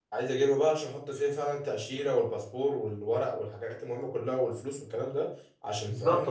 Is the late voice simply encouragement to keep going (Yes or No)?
No